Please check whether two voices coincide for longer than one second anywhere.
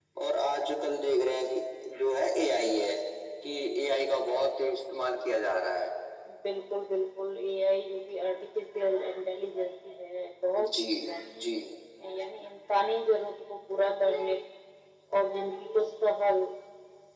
No

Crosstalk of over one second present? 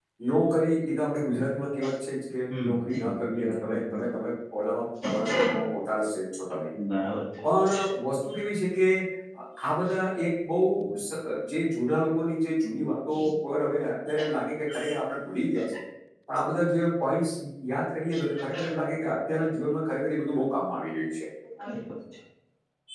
Yes, from 2.5 s

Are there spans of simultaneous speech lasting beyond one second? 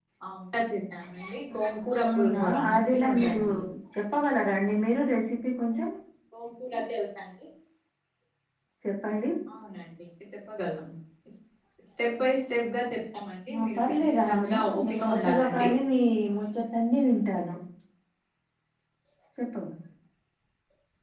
Yes, from 2.1 s

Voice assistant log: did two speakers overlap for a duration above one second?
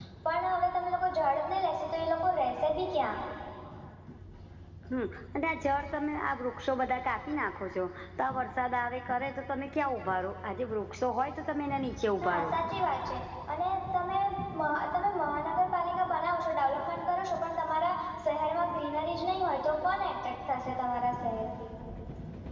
No

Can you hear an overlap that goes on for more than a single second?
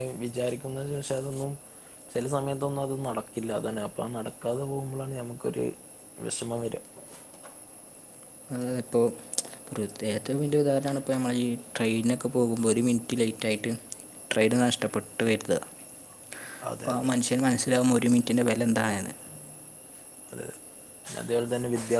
No

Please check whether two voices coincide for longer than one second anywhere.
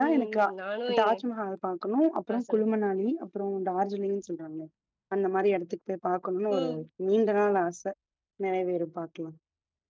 No

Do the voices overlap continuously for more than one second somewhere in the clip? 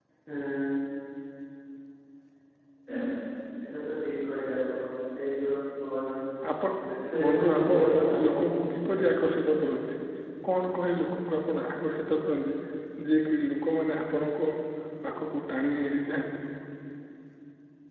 Yes, from 7.2 s

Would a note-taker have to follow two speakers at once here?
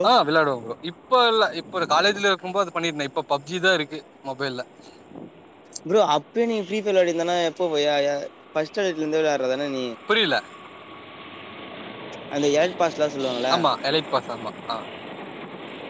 No

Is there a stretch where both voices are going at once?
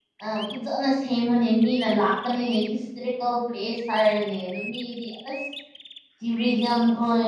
No

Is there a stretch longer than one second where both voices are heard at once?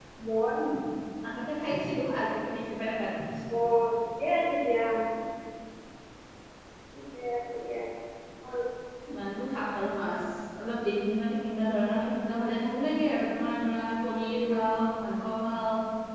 No

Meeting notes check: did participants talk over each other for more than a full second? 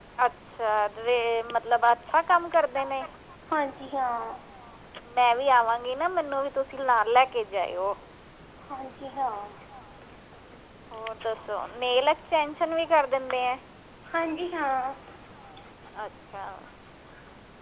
No

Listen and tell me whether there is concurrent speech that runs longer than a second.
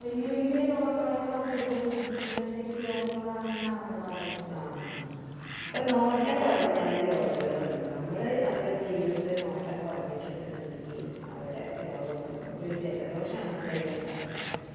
Yes, from 5.9 s

